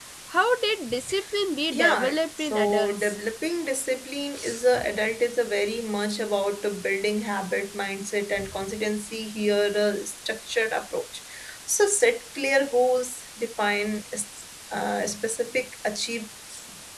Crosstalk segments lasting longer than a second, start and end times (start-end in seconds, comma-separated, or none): 1.7-3.1